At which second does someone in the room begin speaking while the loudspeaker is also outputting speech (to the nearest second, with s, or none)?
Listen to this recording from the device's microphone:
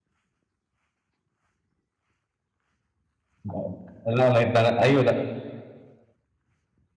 3 s